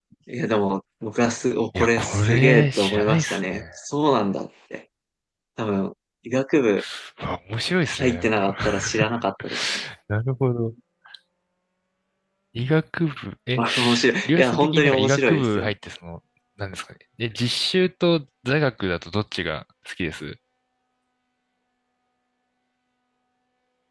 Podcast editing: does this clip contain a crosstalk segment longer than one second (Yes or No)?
Yes